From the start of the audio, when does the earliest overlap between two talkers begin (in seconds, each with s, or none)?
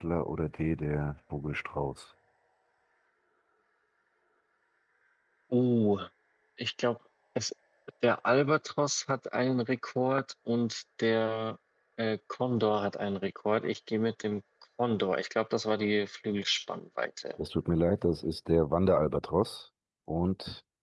none